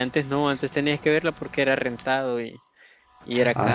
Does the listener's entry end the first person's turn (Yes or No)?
Yes